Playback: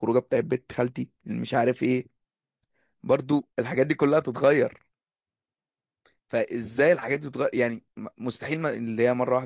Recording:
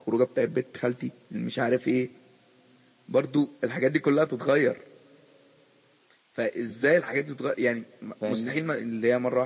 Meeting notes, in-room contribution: present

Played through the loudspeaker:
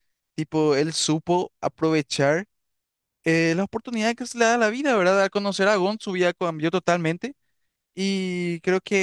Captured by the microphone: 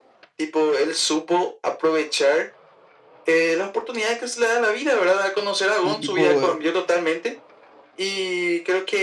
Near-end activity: present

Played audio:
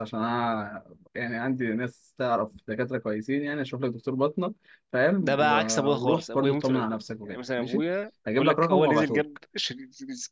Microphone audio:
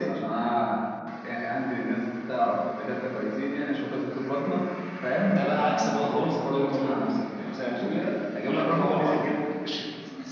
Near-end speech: none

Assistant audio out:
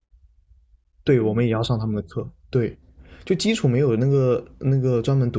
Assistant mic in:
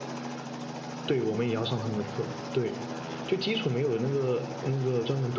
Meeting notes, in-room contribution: none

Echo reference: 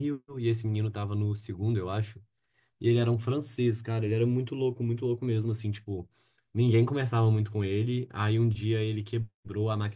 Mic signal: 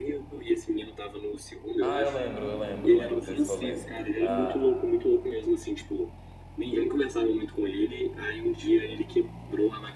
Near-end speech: present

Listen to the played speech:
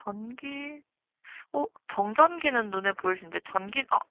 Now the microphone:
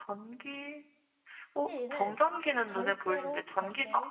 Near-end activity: present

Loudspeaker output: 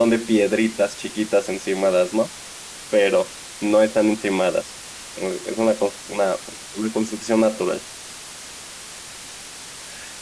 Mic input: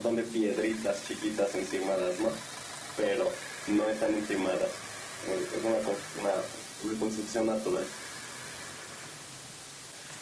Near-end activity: none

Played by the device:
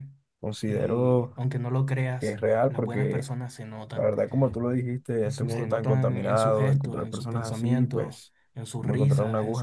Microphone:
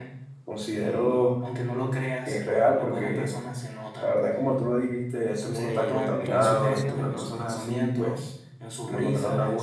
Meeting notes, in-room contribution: present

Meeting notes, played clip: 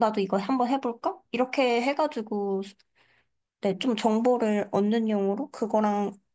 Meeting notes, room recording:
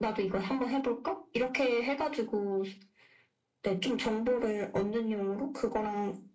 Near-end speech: none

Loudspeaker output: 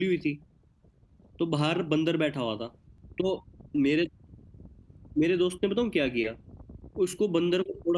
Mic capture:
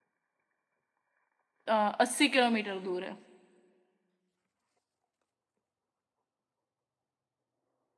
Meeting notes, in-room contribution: present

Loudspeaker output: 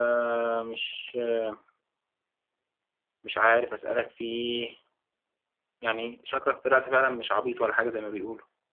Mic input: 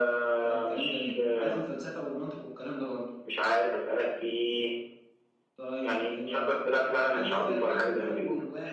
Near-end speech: present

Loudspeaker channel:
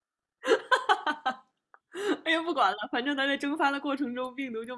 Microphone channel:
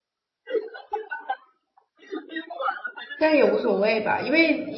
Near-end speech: present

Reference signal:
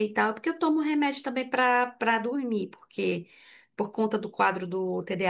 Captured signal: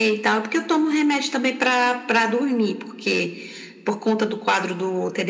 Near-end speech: none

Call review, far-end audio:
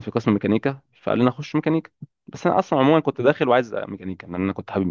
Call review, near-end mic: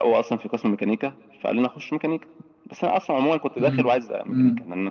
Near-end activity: present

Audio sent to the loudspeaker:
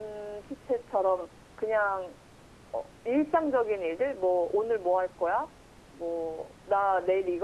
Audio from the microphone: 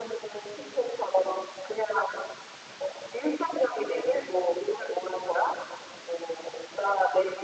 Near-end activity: none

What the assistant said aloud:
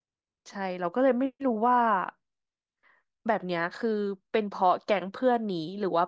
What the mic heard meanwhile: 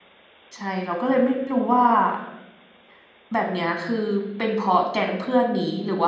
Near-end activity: none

